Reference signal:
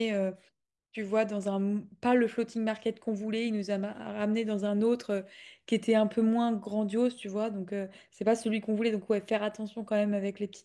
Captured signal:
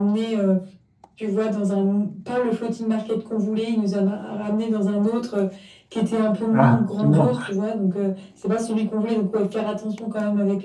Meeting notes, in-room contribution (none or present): present